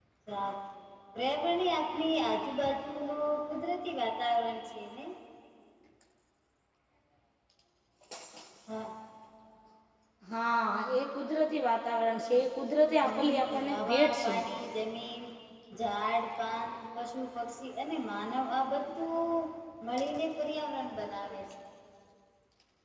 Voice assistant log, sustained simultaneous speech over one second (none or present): present